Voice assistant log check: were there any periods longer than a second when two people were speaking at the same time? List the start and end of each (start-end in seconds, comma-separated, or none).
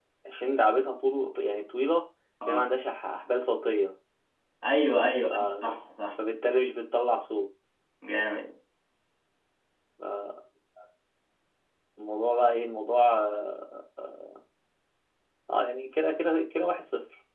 none